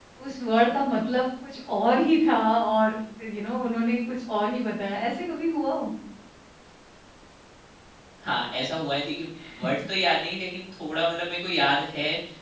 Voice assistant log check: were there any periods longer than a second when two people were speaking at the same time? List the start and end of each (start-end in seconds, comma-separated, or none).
none